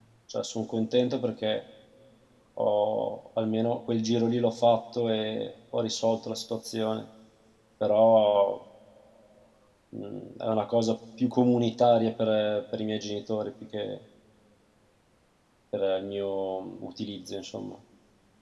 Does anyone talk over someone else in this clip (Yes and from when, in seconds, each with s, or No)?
No